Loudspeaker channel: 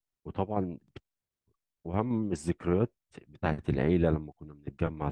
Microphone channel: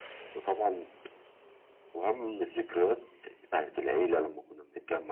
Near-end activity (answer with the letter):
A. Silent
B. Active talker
A